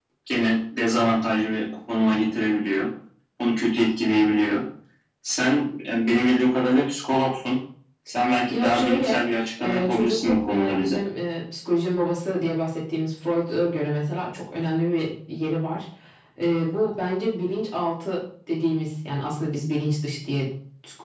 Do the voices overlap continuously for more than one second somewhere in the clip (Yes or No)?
Yes